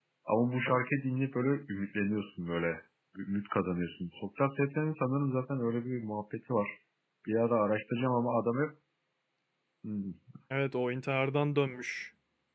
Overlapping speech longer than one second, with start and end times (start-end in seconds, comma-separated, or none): none